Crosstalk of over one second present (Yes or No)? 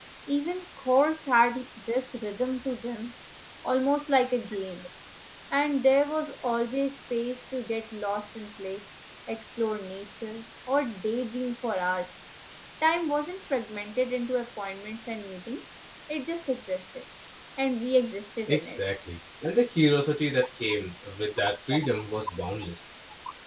No